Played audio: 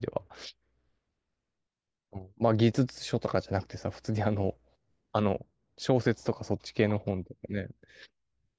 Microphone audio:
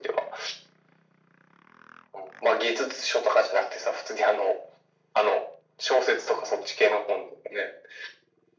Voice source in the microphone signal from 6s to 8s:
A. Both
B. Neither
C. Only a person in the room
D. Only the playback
D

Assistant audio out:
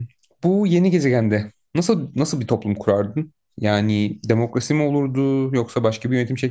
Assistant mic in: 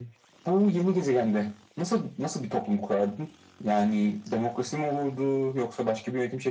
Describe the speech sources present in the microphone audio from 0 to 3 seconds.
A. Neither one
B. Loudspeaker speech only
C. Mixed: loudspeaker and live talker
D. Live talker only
B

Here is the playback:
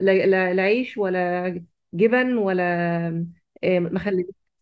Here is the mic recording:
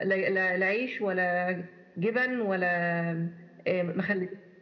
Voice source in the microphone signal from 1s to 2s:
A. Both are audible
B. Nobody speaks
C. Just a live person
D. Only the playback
D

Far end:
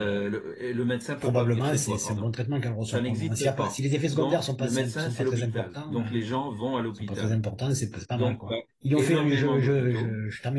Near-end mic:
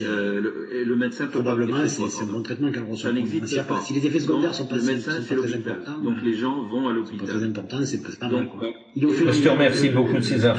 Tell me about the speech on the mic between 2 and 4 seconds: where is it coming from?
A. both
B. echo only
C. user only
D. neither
B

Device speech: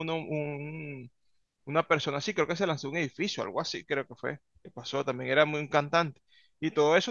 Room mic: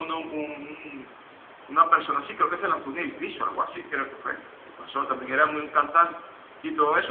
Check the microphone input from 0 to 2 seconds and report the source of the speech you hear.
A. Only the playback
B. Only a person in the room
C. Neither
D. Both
A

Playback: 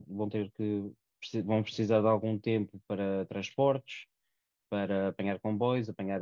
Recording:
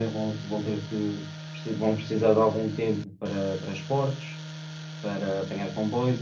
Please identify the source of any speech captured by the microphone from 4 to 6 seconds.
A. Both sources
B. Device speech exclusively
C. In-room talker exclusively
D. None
B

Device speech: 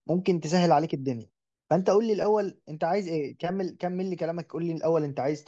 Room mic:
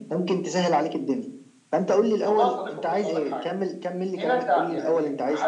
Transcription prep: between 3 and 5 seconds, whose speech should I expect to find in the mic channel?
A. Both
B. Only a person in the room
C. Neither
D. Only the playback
A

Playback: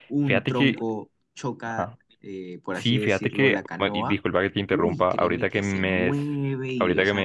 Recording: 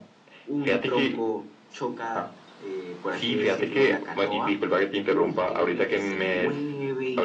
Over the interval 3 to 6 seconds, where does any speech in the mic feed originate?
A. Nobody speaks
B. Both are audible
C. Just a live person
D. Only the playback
D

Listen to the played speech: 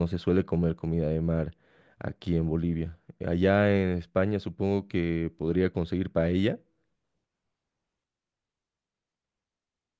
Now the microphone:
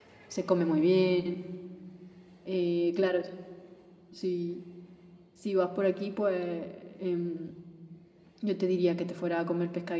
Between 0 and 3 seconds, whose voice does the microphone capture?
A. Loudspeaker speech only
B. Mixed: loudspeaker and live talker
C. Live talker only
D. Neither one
C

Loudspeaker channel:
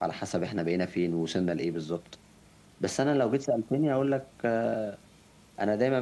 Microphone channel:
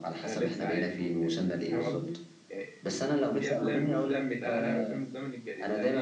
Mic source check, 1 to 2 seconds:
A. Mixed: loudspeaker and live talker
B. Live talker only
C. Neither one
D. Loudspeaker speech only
A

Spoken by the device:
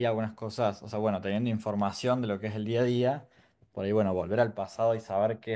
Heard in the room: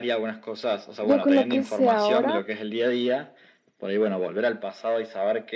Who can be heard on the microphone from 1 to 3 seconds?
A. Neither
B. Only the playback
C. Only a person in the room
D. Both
D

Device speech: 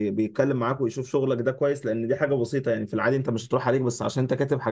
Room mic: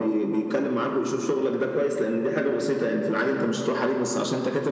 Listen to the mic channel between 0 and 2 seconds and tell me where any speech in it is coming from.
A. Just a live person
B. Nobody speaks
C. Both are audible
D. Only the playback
D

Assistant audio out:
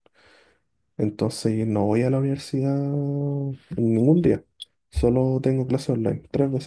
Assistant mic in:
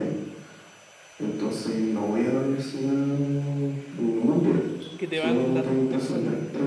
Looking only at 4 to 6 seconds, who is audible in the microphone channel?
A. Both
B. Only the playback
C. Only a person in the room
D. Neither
A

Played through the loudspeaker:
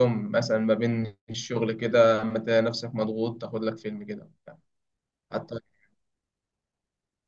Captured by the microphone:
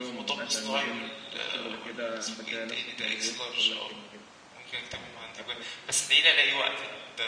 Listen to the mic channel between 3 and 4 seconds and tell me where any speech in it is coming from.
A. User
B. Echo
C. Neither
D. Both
D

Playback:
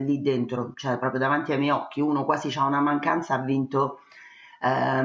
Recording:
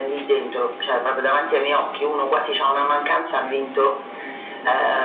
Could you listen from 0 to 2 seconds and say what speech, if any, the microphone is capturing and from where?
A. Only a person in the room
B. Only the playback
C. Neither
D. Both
B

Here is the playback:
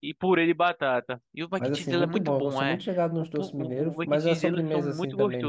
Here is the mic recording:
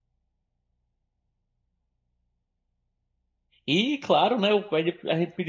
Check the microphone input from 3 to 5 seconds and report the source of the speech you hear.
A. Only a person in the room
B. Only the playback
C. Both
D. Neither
A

